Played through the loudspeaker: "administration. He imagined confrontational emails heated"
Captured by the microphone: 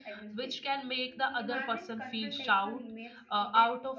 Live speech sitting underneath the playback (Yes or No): No